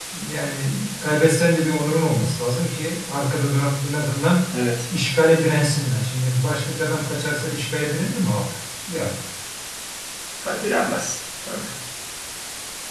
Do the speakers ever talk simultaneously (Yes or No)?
No